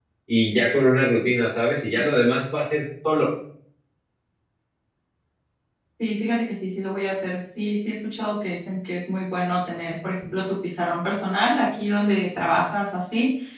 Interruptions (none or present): none